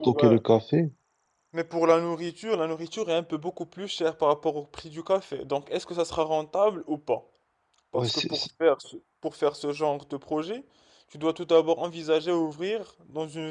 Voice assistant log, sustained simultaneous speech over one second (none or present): none